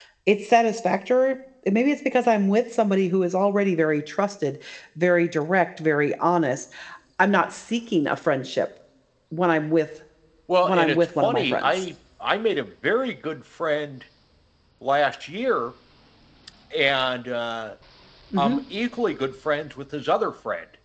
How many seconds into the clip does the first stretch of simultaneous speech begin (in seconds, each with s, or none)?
10.6 s